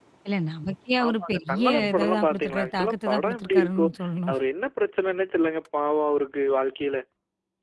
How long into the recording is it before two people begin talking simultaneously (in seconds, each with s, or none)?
1.1 s